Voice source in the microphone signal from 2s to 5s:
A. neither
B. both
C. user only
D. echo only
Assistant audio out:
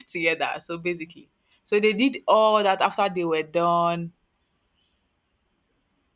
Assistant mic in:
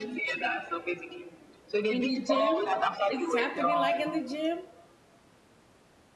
B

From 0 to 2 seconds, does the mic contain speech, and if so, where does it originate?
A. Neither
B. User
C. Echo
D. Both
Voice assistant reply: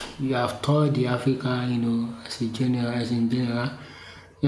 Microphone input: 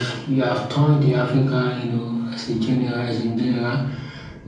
C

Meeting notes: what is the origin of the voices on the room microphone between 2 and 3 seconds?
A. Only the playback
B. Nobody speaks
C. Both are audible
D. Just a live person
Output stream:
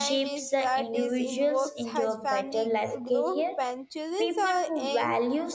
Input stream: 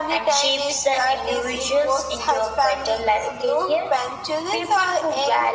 A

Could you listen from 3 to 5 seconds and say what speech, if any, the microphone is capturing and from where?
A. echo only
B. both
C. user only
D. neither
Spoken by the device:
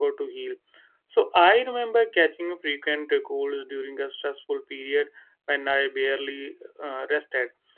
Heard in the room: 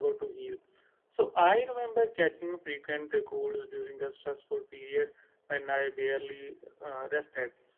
A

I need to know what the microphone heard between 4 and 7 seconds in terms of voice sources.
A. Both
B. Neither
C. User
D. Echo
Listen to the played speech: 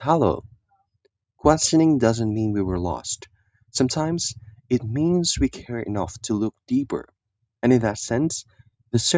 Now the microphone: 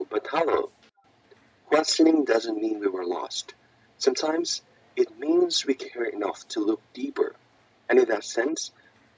D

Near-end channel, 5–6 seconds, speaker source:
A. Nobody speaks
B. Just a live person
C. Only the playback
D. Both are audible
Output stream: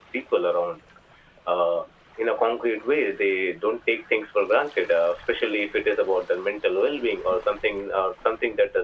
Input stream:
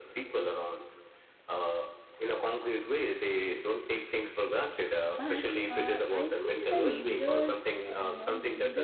D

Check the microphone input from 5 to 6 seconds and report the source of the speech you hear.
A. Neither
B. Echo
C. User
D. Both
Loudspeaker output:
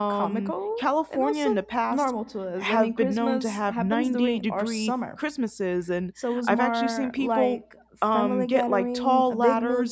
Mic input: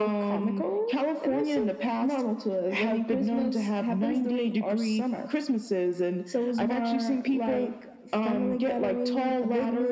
B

